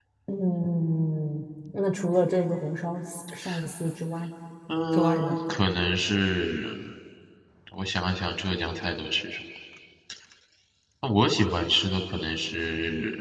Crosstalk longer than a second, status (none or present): none